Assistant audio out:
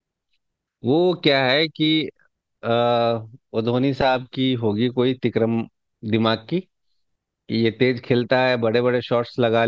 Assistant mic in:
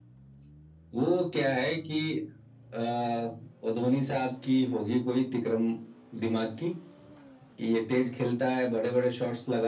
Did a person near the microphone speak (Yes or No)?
No